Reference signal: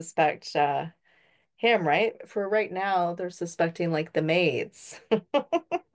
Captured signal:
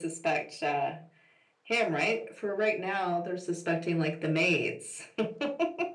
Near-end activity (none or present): none